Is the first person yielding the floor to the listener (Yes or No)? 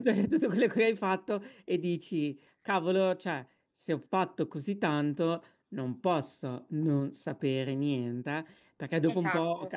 No